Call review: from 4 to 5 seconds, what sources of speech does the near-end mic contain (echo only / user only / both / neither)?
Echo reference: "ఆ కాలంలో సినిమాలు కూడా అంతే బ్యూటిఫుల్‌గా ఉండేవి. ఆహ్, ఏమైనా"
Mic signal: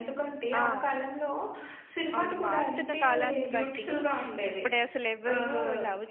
both